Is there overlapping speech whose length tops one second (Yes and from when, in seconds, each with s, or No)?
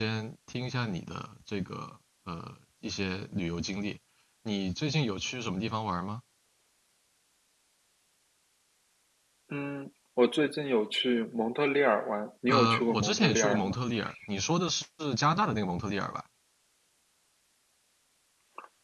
Yes, from 12.5 s